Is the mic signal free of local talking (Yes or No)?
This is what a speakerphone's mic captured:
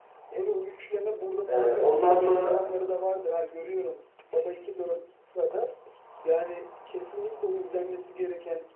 No